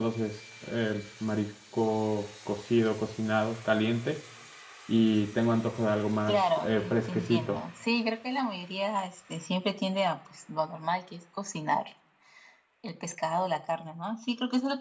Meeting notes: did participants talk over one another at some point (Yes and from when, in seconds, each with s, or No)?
Yes, from 6.3 s